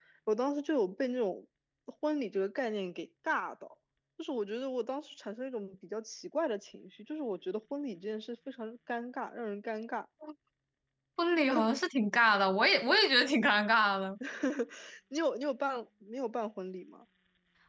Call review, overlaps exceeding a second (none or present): none